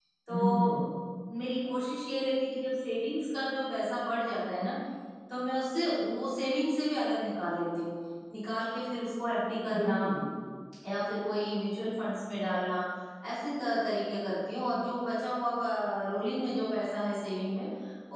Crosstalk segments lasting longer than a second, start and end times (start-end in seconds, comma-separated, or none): none